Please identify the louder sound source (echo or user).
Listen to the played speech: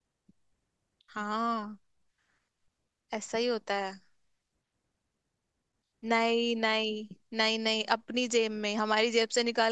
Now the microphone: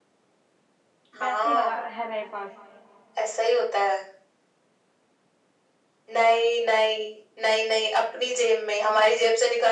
echo